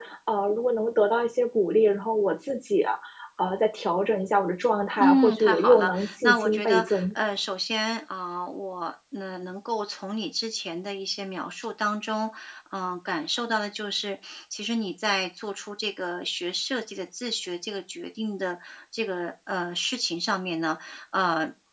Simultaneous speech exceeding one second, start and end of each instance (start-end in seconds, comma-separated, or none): 5.0-7.2